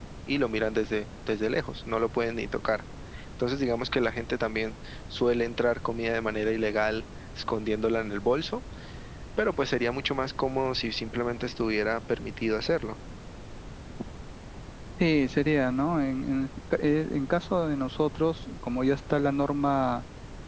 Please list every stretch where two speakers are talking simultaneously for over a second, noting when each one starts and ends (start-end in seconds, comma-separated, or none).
none